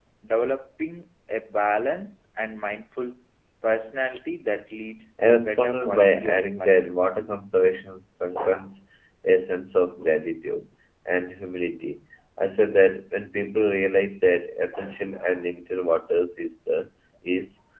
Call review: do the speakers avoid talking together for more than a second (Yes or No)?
No